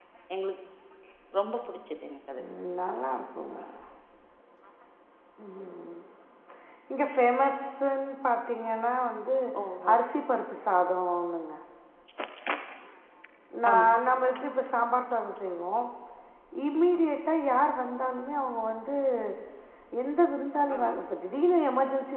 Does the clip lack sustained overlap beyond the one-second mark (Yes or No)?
Yes